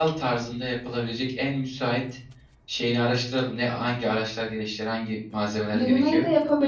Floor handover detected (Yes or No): Yes